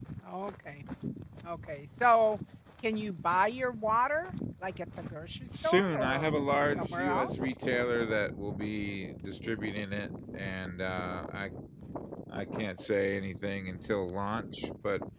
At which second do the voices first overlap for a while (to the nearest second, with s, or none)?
6 s